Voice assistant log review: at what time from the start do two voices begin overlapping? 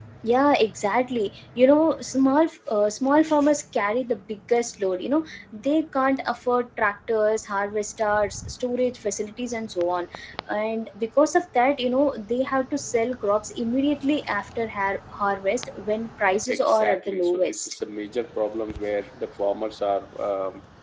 16.5 s

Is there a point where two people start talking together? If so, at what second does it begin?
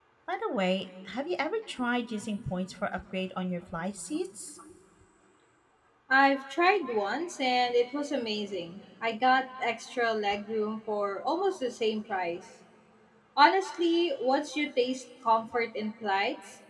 none

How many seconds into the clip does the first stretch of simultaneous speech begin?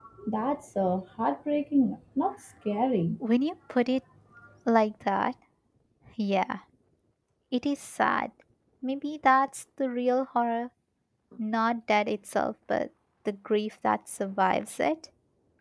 none

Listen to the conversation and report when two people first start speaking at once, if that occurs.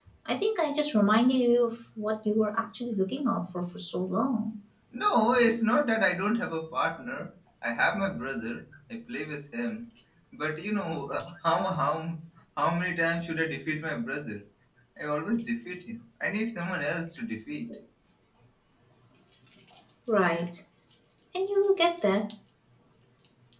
none

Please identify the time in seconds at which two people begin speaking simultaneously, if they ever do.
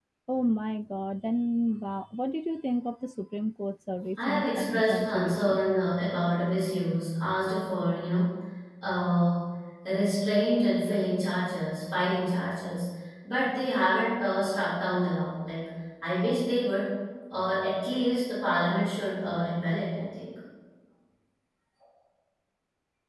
4.2 s

